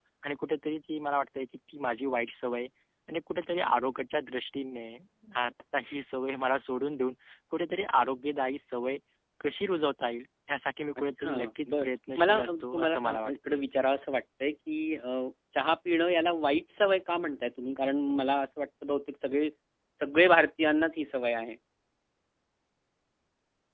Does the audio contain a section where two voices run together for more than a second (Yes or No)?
Yes